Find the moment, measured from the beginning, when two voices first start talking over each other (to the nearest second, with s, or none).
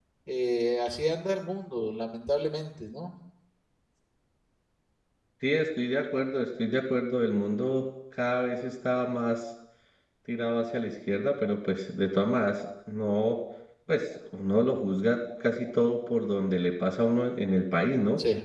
none